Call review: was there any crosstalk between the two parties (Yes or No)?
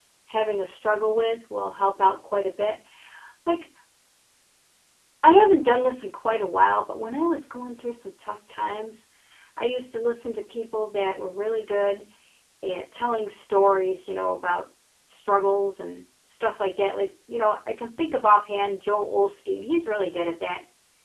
No